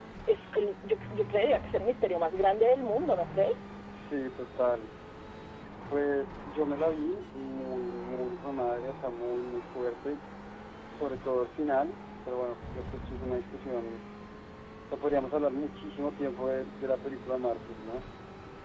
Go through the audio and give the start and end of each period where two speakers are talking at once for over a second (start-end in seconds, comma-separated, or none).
none